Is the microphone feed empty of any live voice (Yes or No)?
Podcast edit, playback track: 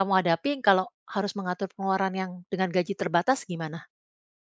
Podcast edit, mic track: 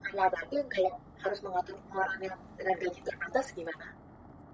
Yes